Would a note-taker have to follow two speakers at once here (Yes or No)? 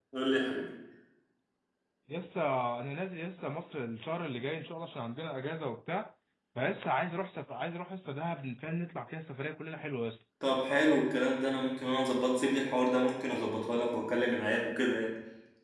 No